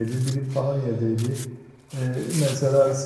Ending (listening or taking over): listening